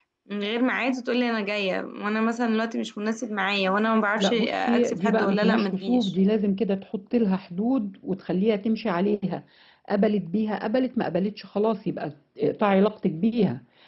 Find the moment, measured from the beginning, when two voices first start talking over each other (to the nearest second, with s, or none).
4 s